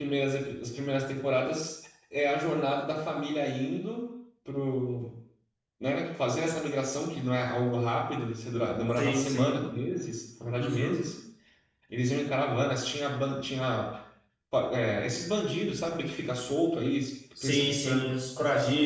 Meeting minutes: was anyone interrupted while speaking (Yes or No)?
Yes